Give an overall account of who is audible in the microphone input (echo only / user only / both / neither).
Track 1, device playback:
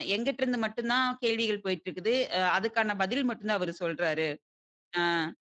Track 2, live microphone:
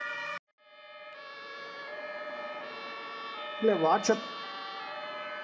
user only